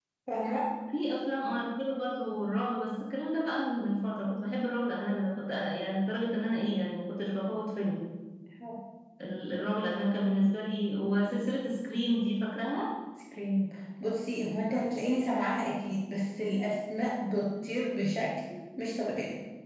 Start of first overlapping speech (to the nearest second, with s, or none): none